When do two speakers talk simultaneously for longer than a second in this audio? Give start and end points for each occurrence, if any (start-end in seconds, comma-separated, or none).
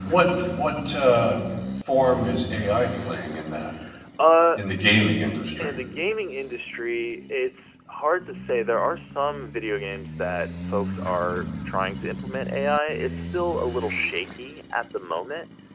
none